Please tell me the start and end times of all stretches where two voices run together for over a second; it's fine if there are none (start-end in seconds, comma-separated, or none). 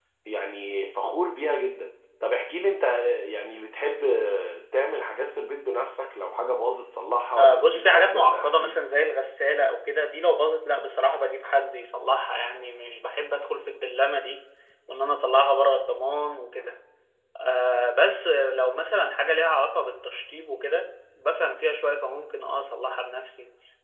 7.4-8.8